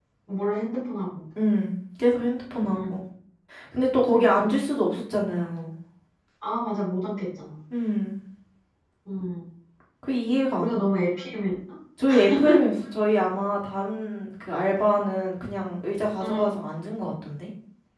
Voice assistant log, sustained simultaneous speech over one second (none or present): none